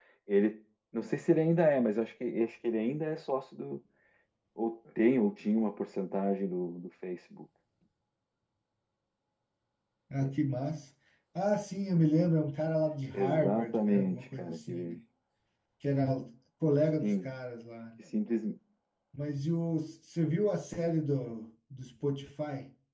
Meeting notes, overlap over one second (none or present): present